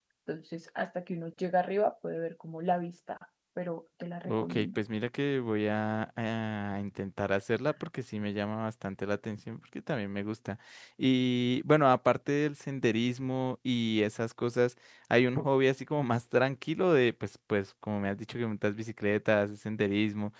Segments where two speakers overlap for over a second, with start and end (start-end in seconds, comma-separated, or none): none